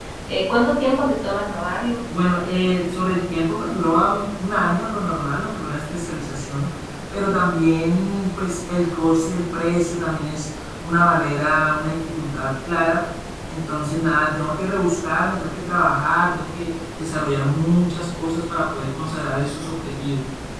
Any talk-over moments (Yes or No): No